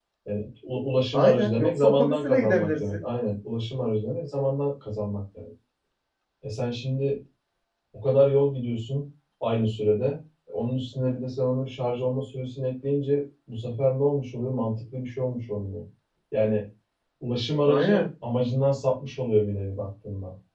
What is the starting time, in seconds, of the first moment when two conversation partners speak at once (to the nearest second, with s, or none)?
1 s